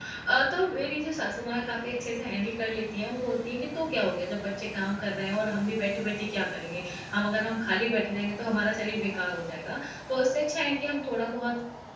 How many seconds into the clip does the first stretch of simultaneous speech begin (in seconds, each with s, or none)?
none